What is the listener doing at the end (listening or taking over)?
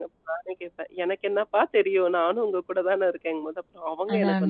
taking over